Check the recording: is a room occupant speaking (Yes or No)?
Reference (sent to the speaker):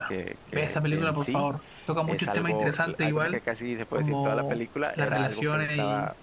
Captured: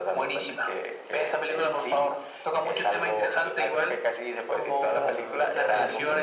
Yes